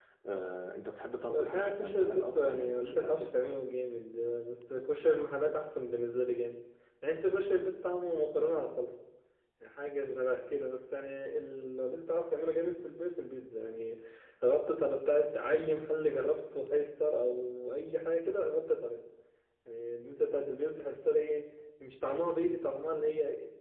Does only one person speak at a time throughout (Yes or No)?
No